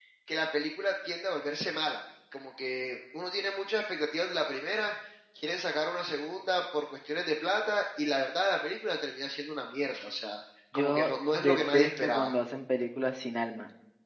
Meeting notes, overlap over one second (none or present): present